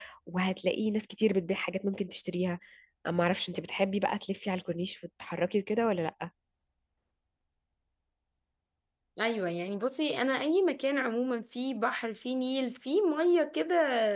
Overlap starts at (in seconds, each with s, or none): none